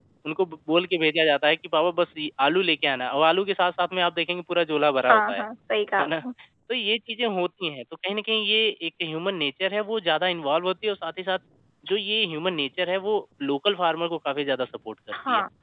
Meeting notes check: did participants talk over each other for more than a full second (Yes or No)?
No